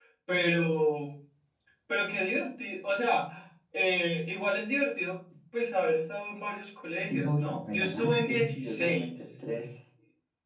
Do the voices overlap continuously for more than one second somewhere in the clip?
Yes, from 7.0 s

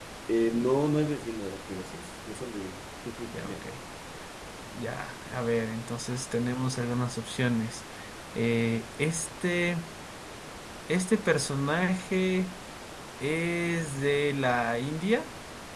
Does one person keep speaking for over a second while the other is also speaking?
No

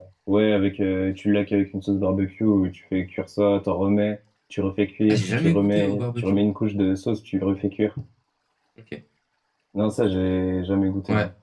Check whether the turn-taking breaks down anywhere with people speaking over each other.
Yes, from 5.1 s

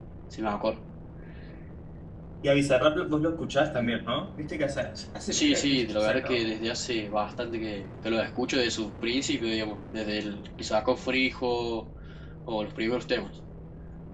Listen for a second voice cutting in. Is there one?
Yes, from 5.3 s

